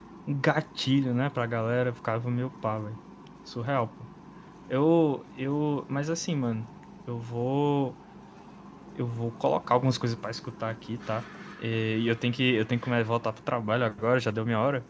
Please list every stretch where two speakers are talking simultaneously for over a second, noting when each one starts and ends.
none

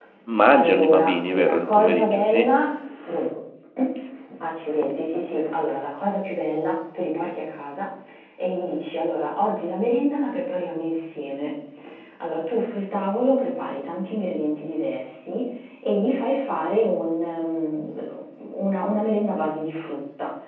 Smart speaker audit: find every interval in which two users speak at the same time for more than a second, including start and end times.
0.5-2.5

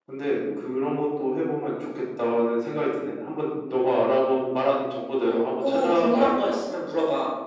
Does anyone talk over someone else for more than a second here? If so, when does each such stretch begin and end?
5.2-6.6

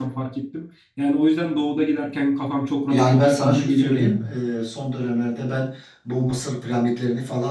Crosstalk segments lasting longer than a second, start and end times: 2.9-4.2

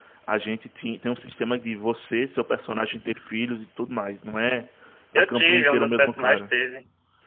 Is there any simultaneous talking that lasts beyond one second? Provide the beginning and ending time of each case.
5.2-6.5

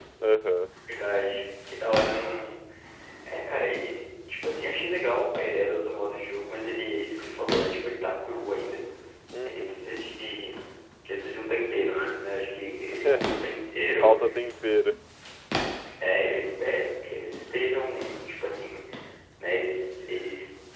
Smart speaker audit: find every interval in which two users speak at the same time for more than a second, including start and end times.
none

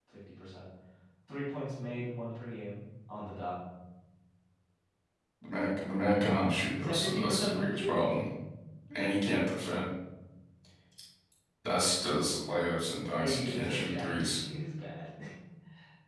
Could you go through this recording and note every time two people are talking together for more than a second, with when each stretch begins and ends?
6.8-8.0, 13.2-14.4

